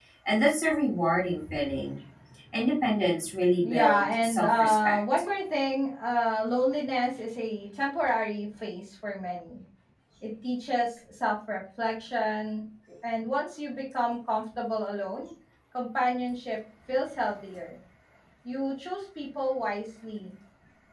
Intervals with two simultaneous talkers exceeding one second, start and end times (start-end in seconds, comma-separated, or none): 3.6-5.0